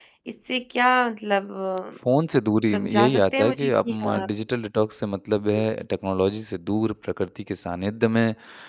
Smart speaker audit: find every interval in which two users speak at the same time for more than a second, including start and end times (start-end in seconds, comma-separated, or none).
2.7-4.2